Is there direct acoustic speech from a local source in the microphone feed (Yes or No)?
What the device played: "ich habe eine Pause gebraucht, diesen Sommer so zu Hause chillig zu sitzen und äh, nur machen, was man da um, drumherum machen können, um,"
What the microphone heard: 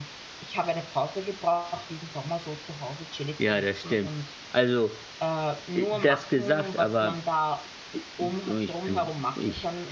Yes